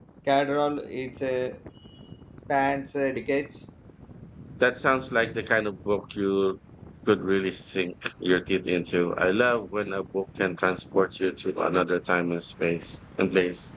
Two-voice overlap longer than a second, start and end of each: none

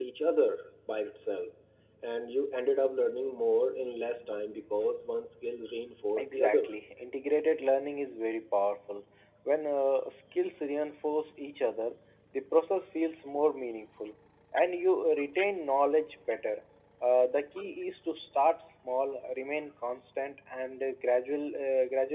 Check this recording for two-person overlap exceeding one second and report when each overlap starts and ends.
none

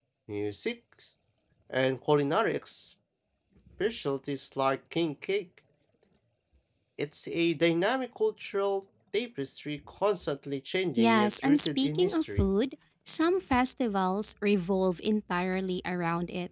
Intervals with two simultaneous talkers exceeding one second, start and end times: 11.0-12.4

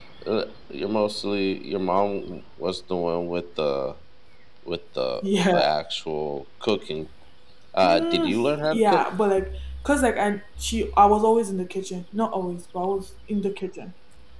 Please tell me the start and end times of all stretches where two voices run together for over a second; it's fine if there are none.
7.8-9.1

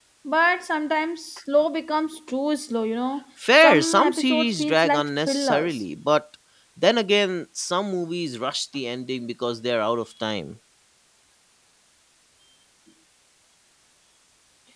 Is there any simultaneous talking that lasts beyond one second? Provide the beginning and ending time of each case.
3.6-5.8

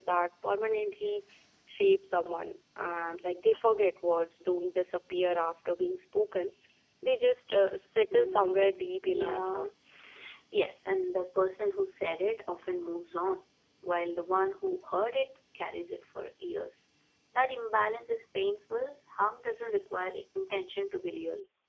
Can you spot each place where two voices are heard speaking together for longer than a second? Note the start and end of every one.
8.1-9.7

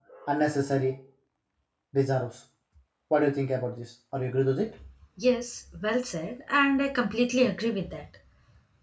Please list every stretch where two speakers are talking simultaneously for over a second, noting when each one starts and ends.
none

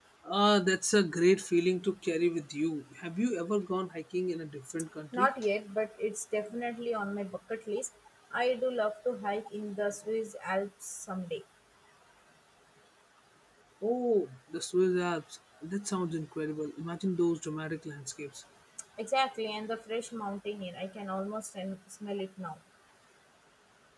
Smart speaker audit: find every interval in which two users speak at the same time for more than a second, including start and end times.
none

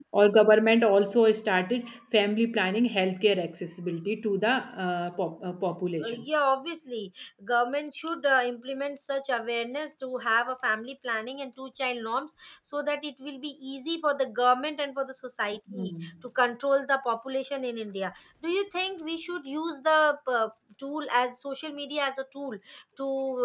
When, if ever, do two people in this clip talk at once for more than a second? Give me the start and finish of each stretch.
none

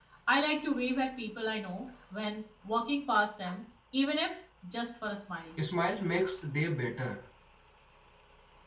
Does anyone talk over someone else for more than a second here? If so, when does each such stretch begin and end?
none

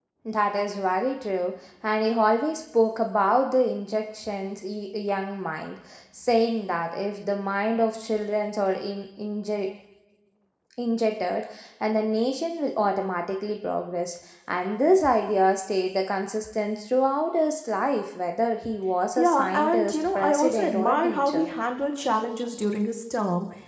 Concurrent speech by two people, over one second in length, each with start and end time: 19.2-21.5

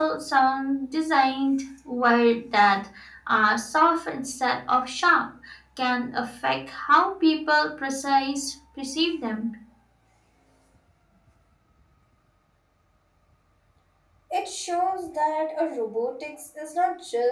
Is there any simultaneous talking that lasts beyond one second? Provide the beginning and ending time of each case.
none

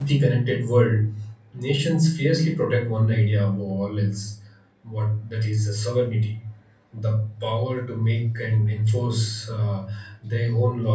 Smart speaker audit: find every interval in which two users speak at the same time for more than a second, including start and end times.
none

